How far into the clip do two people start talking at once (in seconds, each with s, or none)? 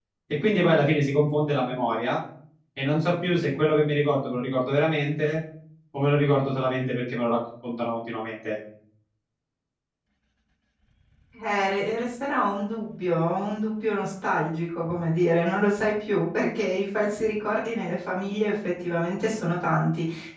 none